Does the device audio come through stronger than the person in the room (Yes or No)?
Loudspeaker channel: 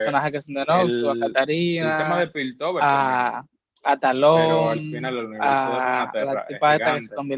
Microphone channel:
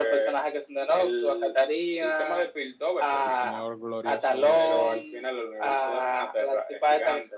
Yes